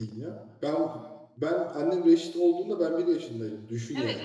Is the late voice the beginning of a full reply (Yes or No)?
Yes